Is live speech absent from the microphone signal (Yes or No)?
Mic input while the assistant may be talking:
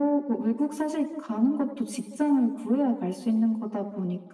Yes